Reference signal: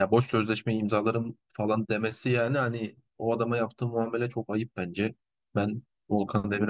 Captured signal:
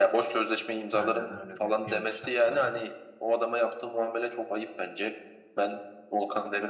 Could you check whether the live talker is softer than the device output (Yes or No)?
Yes